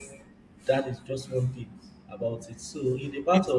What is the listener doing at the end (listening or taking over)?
listening